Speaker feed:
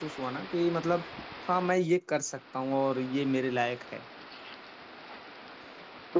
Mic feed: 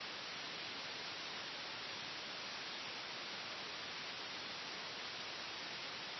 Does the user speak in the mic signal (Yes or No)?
No